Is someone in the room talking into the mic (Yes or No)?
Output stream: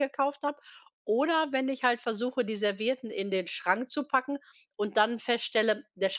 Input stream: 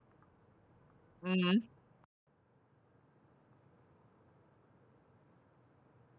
Yes